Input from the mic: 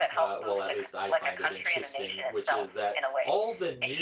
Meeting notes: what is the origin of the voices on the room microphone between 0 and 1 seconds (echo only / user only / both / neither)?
both